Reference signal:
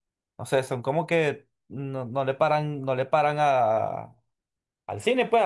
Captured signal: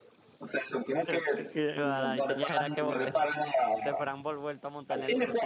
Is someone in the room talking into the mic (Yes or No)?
Yes